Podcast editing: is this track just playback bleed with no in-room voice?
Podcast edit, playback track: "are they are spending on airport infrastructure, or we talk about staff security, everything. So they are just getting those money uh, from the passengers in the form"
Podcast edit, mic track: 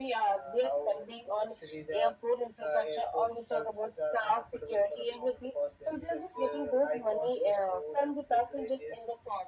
No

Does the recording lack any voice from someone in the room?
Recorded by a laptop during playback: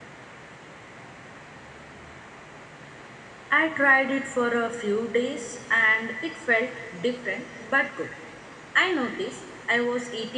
Yes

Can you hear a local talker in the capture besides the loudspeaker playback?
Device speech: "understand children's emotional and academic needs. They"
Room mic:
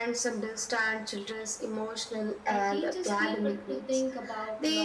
Yes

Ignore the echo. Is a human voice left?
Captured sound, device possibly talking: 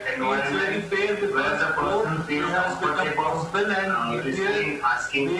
No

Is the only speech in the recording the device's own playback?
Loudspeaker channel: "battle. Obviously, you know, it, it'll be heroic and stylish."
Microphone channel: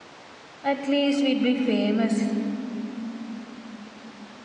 No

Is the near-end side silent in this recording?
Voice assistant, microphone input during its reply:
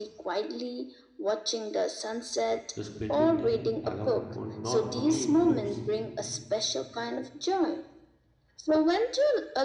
No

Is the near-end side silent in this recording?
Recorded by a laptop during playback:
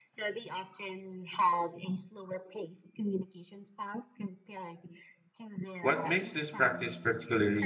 No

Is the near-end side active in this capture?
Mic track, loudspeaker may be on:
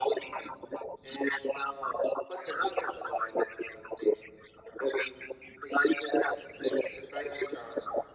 No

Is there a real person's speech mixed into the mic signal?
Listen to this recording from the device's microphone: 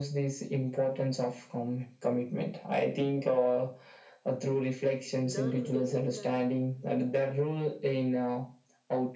Yes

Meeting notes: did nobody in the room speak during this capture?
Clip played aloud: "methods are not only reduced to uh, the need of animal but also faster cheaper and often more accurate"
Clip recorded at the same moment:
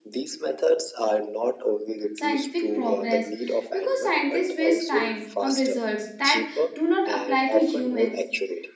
No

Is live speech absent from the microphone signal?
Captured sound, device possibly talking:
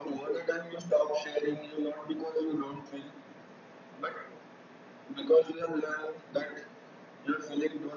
Yes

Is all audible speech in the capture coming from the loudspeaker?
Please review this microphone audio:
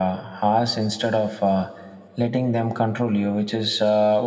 Yes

